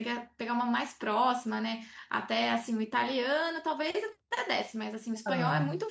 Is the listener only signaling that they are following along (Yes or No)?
Yes